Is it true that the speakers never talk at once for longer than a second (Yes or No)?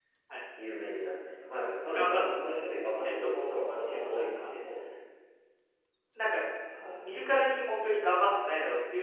No